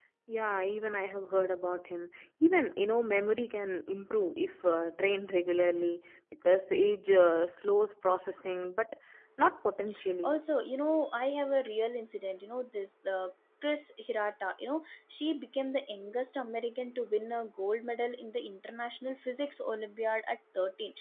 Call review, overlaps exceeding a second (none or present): none